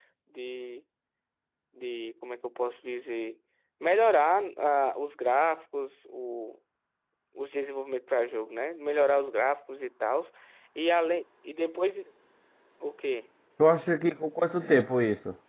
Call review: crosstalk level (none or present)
none